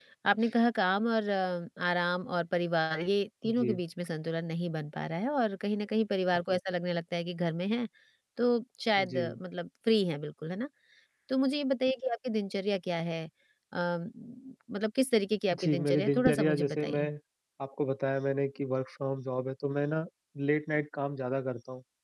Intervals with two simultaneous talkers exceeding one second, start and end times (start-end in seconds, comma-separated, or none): 15.5-17.0